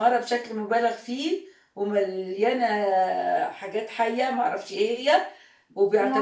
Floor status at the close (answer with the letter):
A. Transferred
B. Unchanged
B